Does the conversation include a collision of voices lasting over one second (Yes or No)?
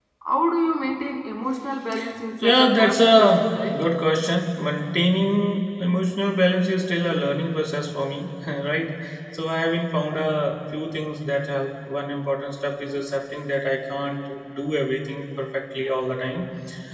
Yes